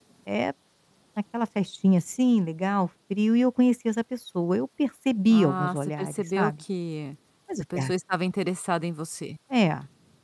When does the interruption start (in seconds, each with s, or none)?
5.3 s